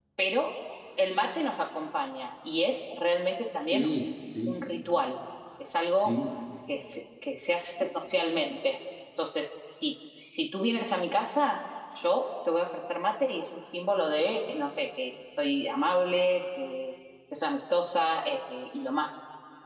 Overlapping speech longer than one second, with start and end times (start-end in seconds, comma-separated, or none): none